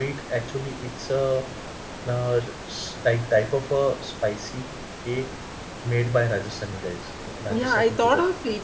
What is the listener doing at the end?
taking over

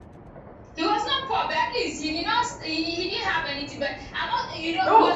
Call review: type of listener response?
taking over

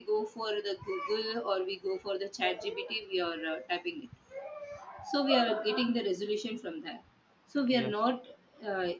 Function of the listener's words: listening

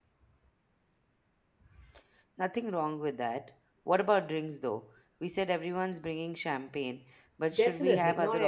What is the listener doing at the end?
taking over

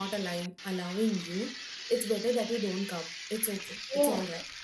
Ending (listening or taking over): listening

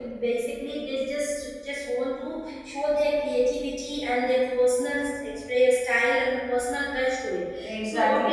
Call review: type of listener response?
taking over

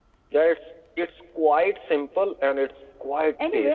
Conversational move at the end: taking over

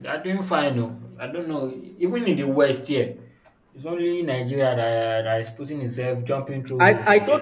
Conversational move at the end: taking over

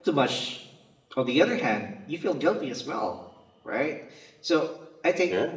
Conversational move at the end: listening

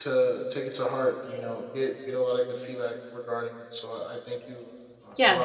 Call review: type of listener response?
taking over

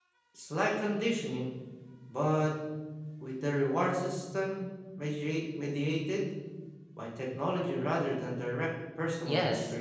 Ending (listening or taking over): taking over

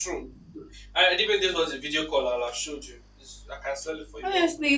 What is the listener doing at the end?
taking over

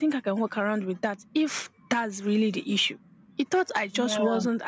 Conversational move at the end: listening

